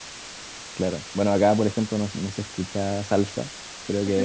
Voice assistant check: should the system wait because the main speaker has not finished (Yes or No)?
No